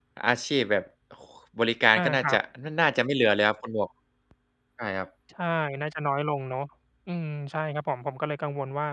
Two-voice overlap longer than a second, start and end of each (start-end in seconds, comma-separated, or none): none